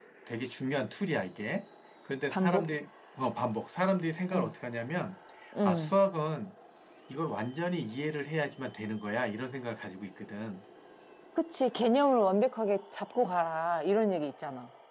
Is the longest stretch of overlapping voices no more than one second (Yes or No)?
Yes